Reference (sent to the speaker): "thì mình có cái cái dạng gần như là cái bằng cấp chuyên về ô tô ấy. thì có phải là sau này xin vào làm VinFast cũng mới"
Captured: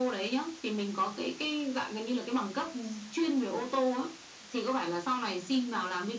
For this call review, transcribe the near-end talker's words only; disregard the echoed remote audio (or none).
none